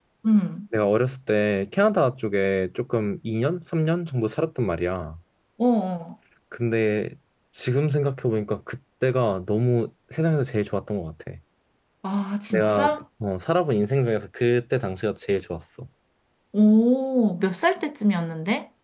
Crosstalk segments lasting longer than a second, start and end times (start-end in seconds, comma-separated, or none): none